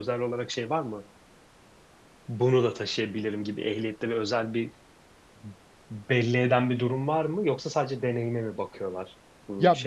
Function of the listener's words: taking over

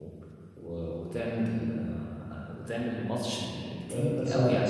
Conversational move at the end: taking over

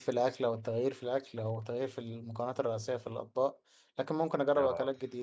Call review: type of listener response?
listening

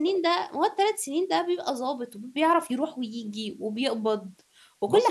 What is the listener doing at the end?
taking over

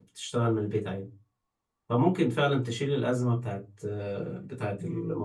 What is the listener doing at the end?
taking over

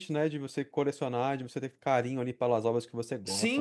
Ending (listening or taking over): taking over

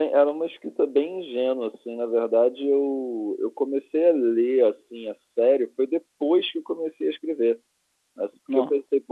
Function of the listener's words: listening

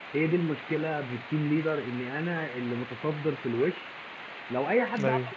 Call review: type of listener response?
listening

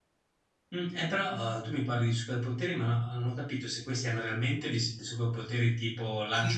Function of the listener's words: taking over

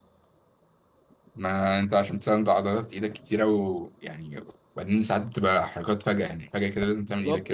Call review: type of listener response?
taking over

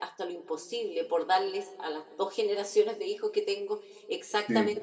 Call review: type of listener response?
listening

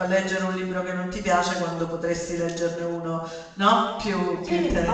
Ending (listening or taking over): taking over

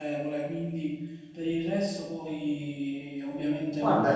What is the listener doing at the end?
taking over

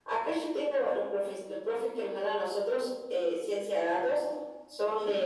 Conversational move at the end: listening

